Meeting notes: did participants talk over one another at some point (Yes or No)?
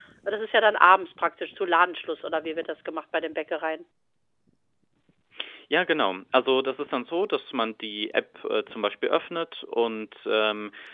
No